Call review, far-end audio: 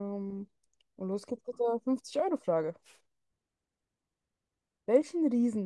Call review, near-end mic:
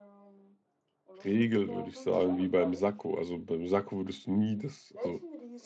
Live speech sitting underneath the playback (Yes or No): No